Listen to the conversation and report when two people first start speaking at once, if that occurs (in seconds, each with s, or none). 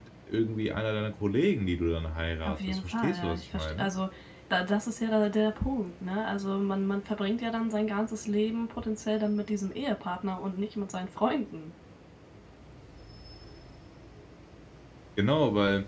2.4 s